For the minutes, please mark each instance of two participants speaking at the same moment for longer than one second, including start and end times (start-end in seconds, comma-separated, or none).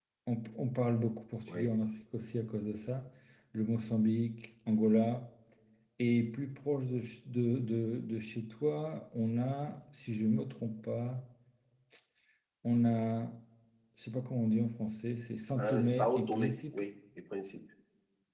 15.6-16.8